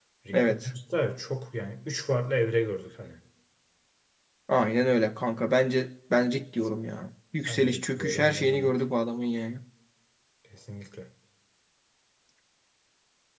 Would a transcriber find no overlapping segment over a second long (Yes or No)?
No